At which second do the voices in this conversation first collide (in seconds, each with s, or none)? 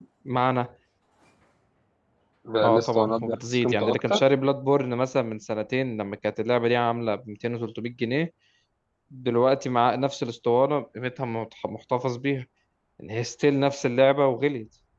2.6 s